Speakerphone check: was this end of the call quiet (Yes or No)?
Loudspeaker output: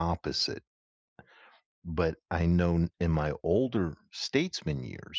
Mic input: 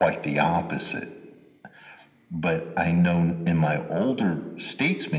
Yes